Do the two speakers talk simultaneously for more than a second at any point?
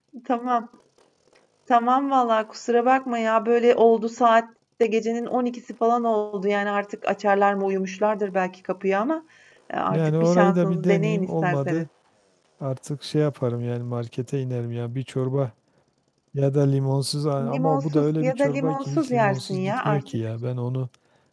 Yes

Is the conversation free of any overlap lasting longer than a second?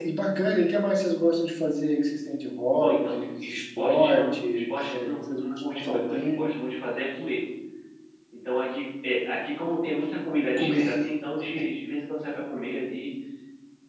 No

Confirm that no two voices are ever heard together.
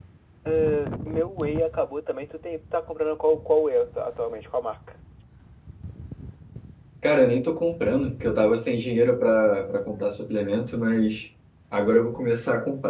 Yes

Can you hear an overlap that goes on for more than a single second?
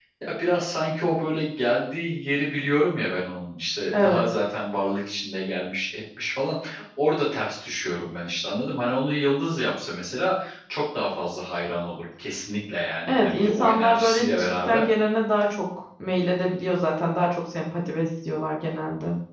Yes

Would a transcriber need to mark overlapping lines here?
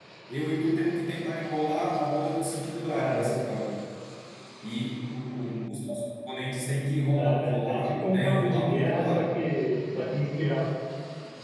Yes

